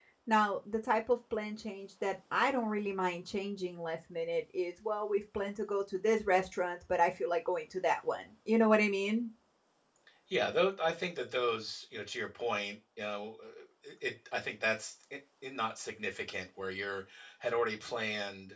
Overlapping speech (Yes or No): No